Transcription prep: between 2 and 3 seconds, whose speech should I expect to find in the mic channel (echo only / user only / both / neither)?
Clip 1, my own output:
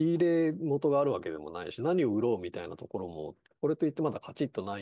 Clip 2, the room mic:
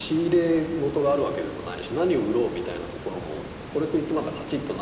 echo only